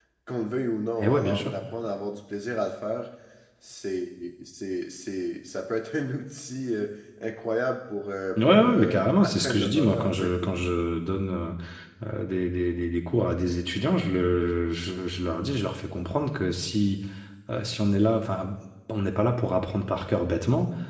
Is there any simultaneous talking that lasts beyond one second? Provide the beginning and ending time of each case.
8.4-10.3

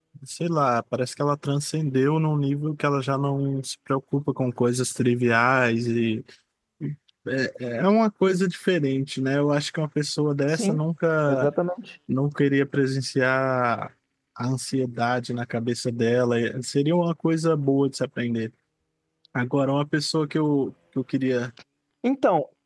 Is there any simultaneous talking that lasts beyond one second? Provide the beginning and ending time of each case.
none

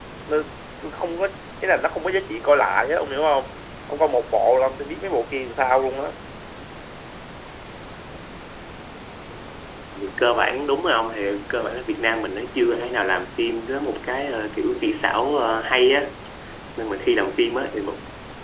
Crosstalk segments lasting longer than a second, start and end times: none

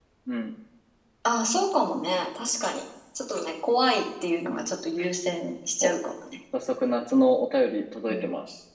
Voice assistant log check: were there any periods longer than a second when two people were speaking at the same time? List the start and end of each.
none

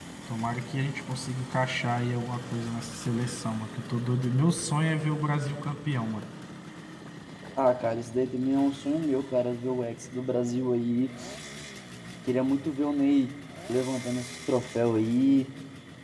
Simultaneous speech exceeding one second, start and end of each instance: none

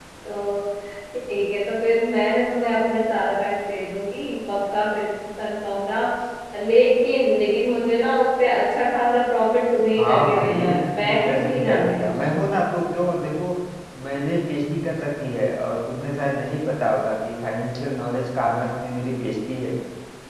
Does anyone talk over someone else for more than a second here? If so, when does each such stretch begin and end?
10.0-12.1

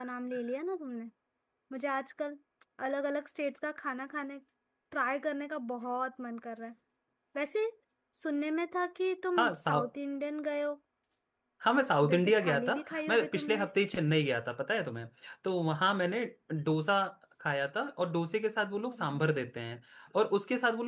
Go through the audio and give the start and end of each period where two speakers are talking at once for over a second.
12.0-13.7

